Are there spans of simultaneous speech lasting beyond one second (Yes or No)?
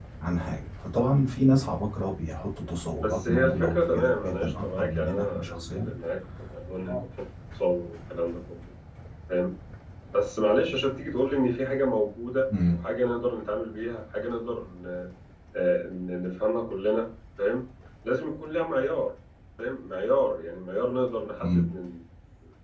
Yes